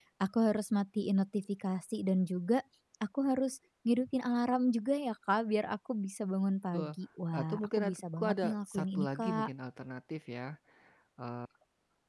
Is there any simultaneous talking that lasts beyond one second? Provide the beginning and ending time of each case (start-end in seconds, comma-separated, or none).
7.4-9.5